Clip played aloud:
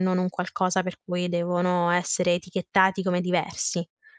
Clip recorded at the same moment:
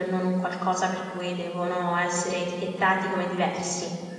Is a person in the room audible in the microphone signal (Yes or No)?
No